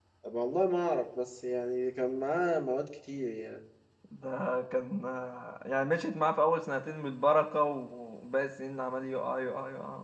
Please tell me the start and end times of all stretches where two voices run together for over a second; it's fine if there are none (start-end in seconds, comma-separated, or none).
none